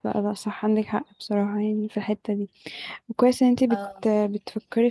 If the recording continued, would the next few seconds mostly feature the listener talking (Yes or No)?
No